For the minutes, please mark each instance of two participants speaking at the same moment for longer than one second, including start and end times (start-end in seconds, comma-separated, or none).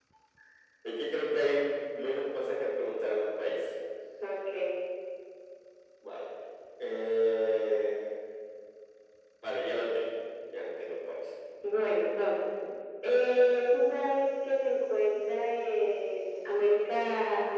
none